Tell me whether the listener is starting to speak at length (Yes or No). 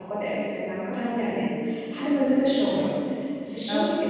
No